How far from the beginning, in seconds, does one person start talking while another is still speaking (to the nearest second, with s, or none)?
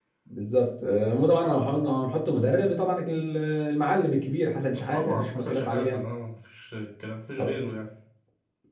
5 s